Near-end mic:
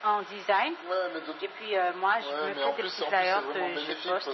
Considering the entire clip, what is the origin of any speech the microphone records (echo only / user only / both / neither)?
echo only